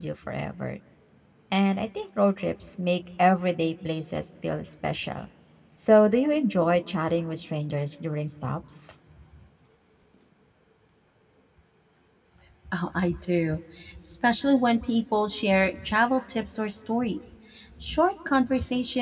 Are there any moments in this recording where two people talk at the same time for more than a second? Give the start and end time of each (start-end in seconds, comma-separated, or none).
none